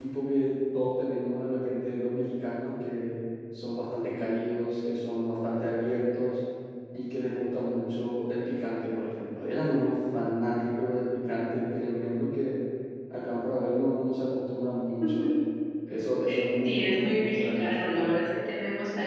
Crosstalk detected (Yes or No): Yes